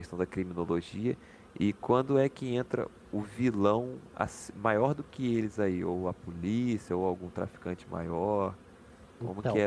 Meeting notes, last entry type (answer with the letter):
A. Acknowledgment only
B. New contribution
A